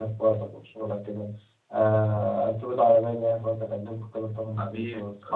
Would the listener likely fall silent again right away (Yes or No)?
No